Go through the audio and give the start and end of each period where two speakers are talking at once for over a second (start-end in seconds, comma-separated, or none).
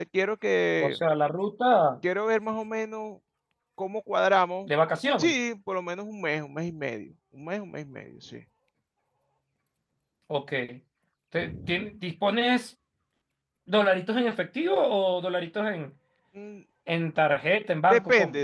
none